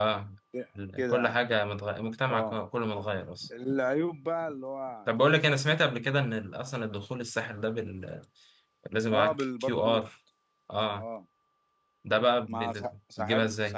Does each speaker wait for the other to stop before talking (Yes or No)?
No